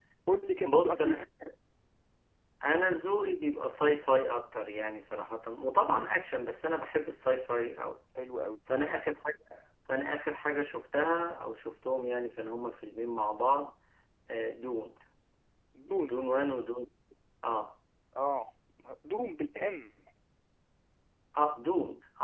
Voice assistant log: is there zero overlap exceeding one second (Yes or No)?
Yes